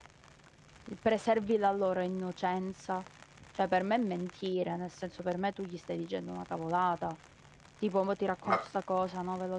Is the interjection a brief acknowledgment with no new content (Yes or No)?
Yes